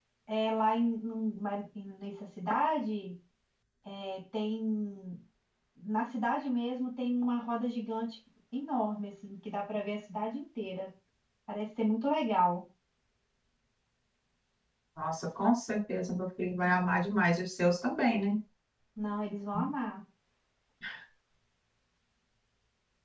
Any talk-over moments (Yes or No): No